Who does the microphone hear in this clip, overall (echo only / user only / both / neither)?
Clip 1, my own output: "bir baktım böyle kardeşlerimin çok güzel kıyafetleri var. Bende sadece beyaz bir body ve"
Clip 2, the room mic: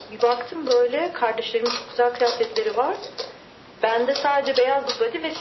echo only